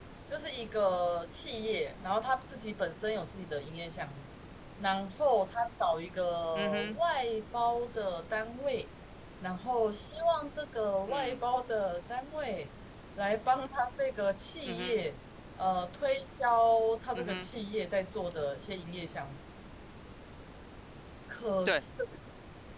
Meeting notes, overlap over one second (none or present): none